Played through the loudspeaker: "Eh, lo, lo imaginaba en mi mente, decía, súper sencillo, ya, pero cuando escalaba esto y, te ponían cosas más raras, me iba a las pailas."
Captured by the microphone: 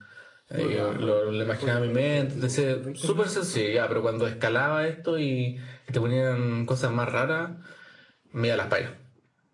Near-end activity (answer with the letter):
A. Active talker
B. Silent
A